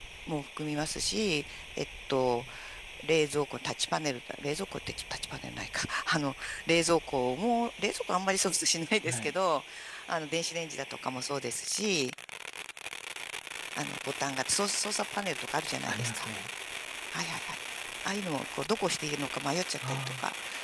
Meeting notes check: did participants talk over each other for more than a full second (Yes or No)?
No